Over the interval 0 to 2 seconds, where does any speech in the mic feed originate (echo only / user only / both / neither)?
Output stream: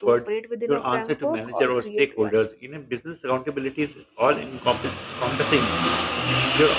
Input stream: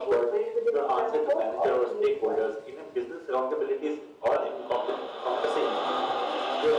echo only